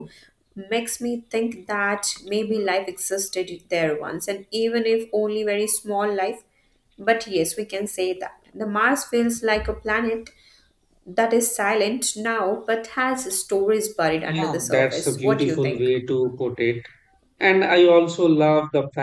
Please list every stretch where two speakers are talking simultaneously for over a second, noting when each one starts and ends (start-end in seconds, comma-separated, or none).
14.2-15.9